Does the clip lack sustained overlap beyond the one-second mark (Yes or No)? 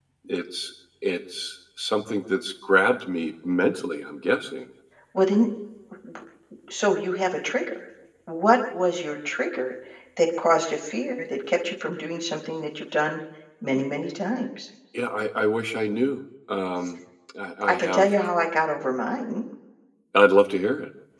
Yes